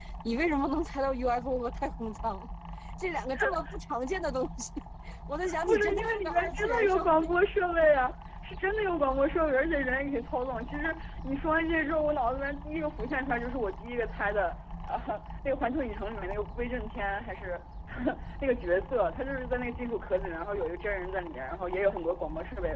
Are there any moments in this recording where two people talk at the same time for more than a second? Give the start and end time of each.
5.7-7.0

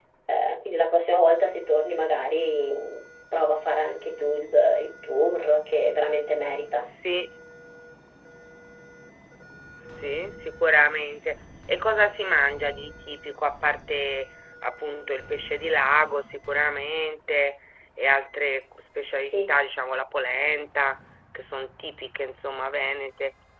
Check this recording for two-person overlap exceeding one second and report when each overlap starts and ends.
none

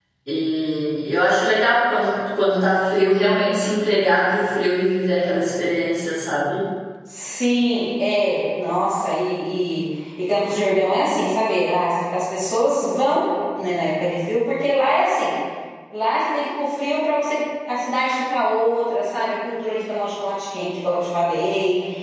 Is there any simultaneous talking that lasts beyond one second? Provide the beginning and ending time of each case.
none

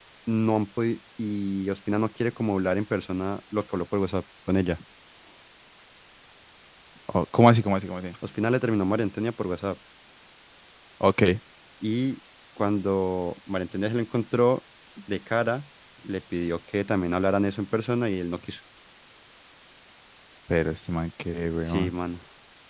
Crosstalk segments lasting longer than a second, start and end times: none

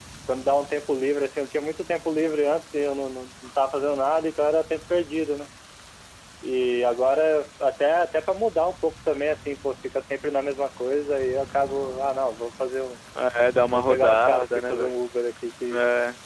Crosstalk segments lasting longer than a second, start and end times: 13.7-14.9

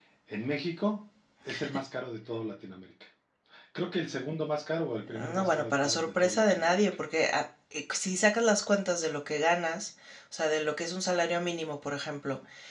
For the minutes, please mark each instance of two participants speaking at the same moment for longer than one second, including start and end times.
5.1-6.8

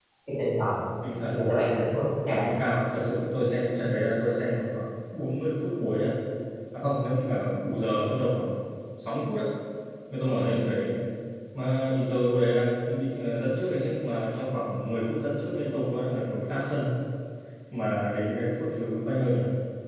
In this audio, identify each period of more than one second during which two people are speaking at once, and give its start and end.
none

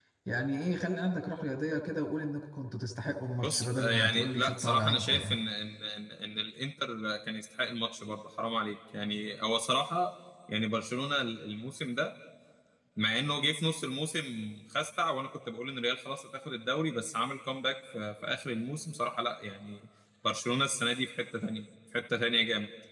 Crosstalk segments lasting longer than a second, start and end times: 3.4-5.4

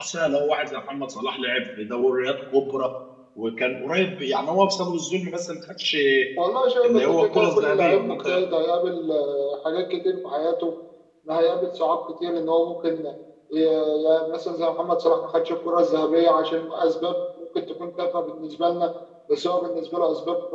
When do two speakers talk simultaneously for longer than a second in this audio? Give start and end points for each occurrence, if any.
6.8-8.2

